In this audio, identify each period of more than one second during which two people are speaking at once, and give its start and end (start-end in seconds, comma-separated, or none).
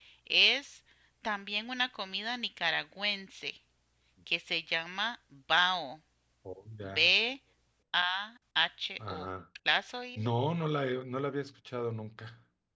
none